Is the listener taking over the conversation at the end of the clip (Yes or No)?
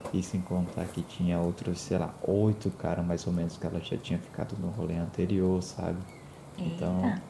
No